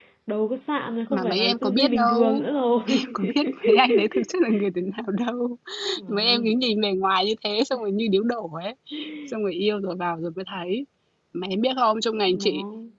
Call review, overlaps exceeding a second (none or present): present